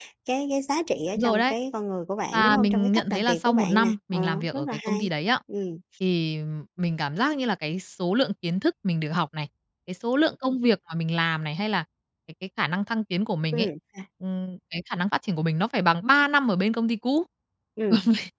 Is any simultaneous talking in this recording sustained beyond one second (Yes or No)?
Yes